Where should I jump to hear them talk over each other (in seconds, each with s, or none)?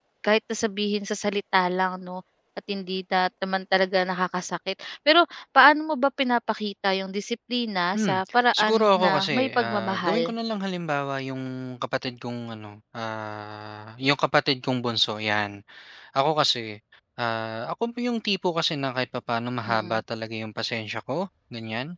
7.9 s